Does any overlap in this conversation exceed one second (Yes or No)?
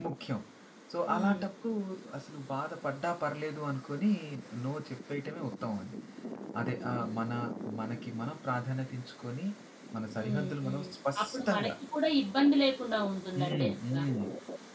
Yes